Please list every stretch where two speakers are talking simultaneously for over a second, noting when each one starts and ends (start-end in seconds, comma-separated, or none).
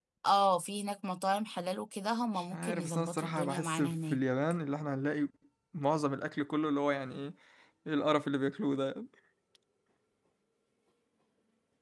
2.4-4.2